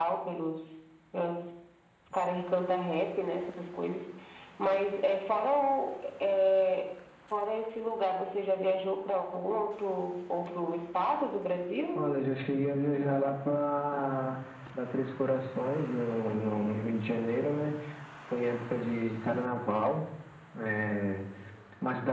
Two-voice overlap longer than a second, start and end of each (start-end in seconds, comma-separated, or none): none